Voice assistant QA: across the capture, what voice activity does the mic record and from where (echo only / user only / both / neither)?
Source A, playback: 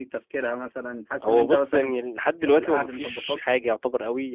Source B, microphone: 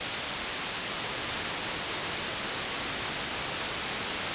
neither